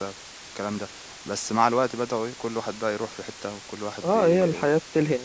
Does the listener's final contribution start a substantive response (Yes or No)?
Yes